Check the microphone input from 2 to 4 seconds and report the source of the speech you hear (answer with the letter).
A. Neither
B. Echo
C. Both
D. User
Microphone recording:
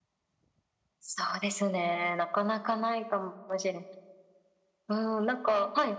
B